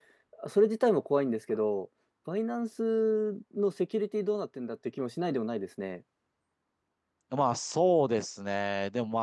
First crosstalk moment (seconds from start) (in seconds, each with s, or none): none